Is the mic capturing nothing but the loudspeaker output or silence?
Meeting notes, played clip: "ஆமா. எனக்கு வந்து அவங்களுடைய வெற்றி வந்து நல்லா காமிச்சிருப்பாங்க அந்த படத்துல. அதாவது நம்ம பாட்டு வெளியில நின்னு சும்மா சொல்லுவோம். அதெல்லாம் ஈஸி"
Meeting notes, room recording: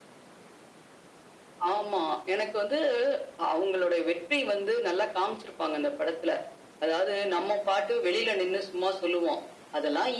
Yes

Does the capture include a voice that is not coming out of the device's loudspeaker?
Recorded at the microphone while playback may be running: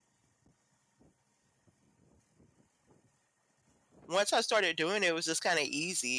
Yes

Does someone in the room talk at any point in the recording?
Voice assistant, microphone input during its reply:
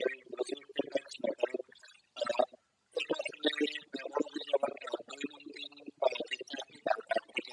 No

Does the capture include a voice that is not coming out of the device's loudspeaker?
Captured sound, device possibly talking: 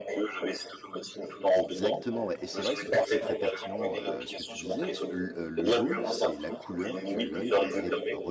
Yes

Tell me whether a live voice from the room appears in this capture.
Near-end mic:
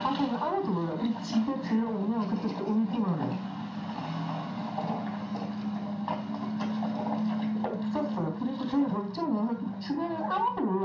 No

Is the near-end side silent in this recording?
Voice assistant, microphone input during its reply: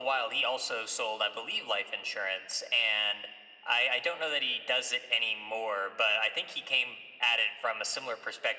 Yes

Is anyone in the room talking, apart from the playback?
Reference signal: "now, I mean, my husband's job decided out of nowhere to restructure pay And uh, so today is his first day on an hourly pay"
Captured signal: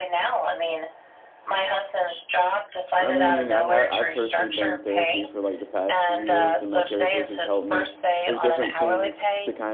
Yes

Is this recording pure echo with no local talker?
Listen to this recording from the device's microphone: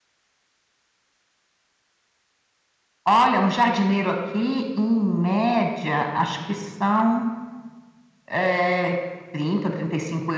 Yes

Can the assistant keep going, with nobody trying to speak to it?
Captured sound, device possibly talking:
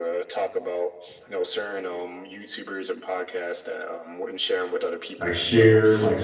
No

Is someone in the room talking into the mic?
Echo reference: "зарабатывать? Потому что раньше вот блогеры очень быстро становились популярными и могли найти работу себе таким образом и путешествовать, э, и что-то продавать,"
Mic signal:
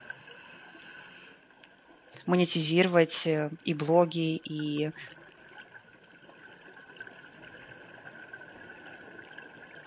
Yes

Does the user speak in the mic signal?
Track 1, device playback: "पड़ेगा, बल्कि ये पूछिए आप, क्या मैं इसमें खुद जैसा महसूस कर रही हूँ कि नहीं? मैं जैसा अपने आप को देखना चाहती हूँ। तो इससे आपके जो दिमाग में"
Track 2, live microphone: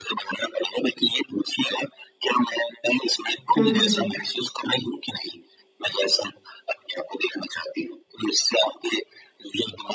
Yes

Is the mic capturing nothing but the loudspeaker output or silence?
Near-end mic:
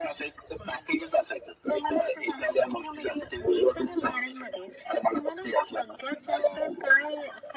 Yes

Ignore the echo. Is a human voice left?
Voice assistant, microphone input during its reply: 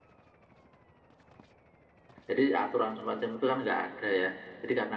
Yes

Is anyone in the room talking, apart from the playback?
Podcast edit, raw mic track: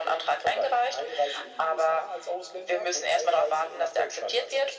No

